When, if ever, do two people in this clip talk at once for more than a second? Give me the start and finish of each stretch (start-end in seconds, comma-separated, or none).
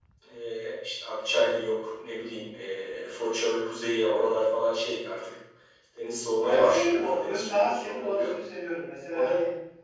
6.5-8.3